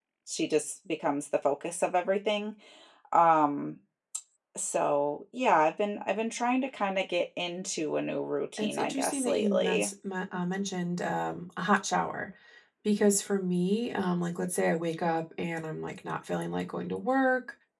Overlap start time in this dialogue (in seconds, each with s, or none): 8.6 s